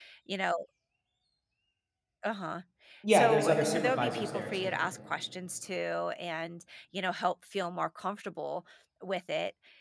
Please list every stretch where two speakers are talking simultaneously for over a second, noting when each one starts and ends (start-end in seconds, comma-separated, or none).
3.1-4.9